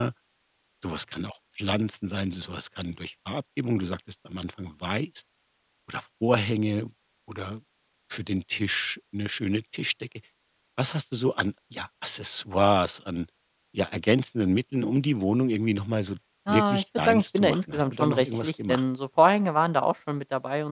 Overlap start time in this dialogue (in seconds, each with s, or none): 16.5 s